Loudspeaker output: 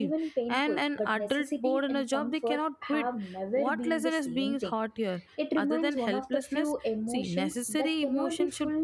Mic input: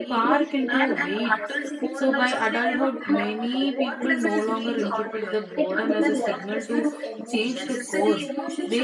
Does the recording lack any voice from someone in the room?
No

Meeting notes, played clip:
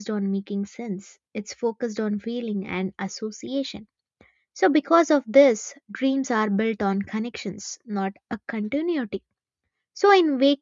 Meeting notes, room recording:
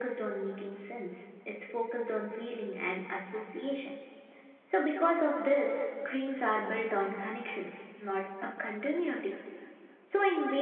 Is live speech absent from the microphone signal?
Yes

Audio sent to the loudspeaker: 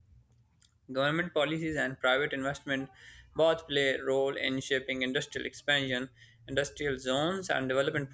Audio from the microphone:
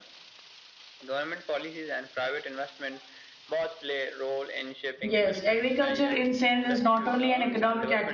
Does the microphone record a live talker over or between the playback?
Yes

